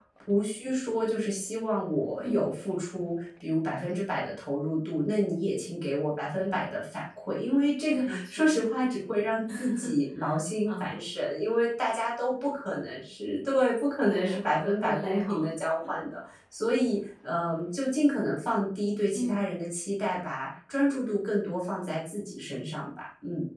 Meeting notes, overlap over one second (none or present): present